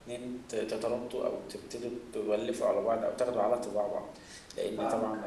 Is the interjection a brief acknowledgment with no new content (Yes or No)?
Yes